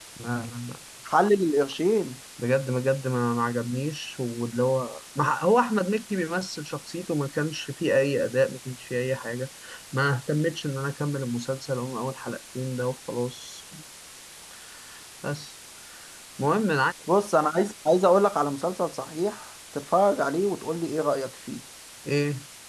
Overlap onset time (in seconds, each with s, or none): none